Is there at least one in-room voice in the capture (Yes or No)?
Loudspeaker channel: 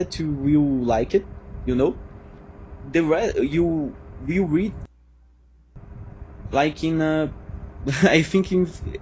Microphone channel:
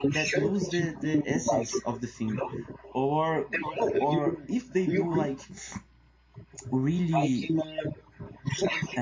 Yes